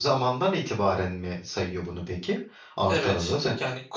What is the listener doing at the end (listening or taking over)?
taking over